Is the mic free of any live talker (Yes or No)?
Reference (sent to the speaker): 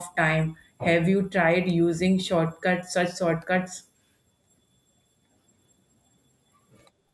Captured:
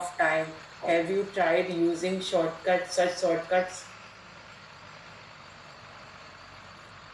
Yes